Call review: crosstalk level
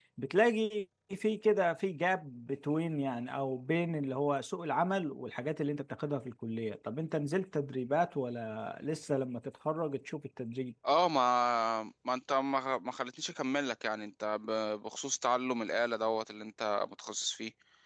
none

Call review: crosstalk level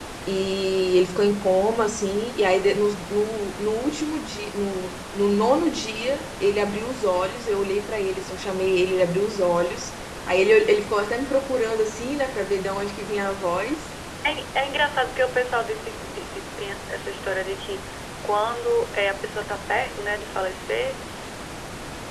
none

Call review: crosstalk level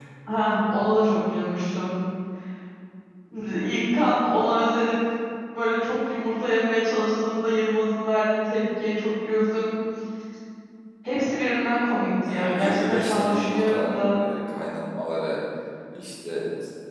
present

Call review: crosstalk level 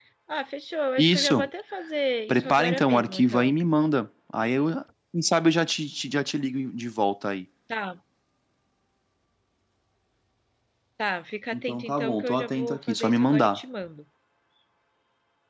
present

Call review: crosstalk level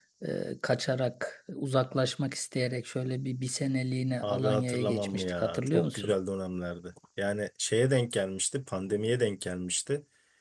present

